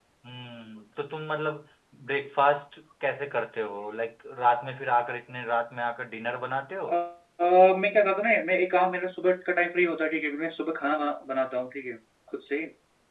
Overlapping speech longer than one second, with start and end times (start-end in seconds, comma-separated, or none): none